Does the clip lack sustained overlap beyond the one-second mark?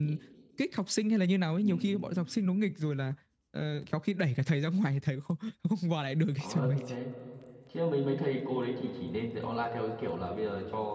Yes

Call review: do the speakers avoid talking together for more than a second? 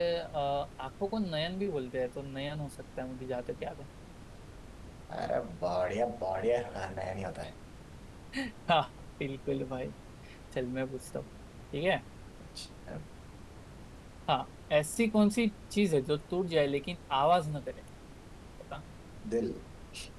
Yes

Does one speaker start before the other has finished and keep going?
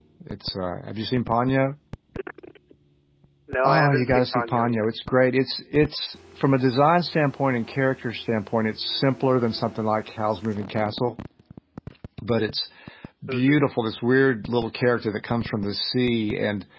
Yes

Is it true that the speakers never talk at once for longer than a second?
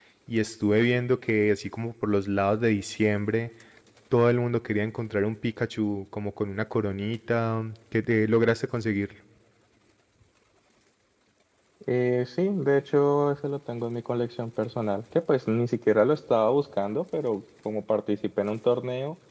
Yes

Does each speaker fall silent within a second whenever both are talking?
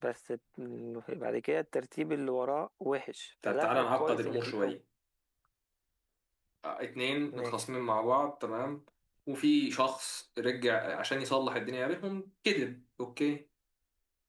No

